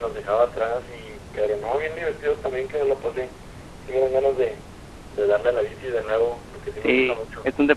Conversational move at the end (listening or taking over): taking over